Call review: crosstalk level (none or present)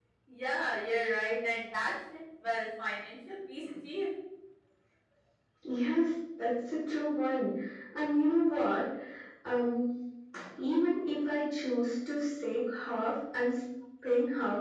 none